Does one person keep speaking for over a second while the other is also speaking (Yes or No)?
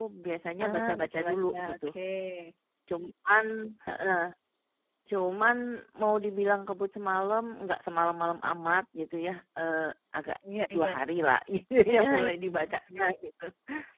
Yes